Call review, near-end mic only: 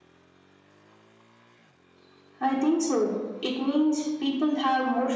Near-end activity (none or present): none